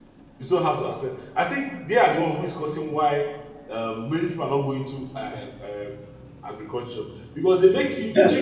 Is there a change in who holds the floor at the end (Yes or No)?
No